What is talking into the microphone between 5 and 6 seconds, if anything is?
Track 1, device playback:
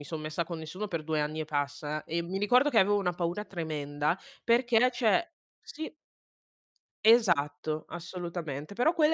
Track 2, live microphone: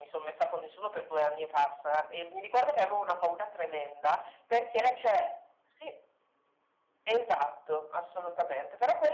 echo only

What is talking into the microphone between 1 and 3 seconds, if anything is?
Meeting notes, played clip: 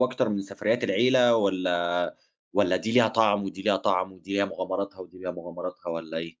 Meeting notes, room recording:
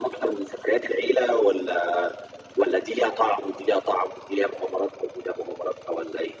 echo only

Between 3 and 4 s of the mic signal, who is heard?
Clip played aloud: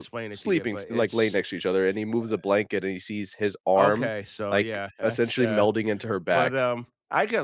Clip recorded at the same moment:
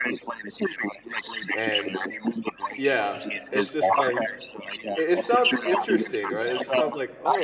both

